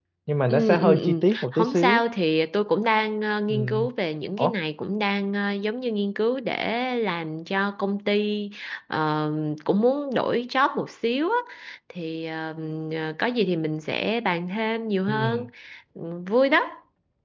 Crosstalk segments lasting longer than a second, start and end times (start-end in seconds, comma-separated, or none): 0.5-2.0